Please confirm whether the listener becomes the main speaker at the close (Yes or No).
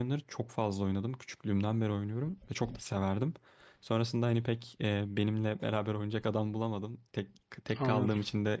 No